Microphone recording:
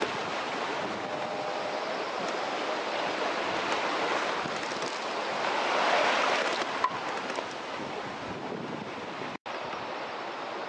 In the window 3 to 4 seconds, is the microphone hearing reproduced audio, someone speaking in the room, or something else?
neither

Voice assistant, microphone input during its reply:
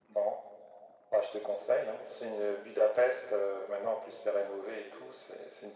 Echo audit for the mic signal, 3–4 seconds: echo only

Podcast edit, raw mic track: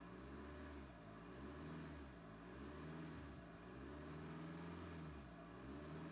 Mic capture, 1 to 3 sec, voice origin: neither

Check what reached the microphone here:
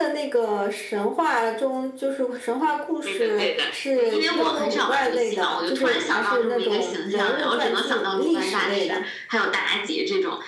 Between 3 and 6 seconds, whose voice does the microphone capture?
echo only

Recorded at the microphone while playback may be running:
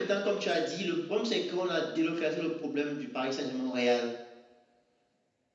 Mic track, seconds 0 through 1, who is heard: echo only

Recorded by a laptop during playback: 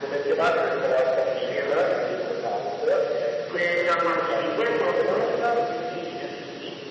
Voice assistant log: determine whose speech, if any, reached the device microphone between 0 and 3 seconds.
echo only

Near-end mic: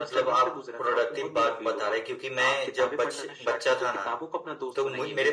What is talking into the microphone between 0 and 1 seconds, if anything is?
echo only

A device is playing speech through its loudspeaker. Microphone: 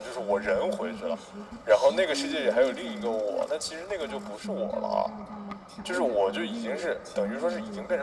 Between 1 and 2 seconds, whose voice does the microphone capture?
both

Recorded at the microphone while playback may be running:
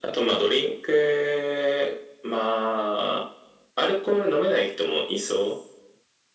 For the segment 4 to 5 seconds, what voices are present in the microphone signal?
echo only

